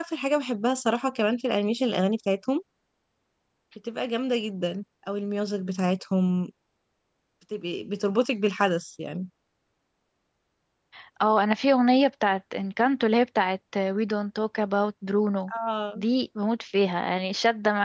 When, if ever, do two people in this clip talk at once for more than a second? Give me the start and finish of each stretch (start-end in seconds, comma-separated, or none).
none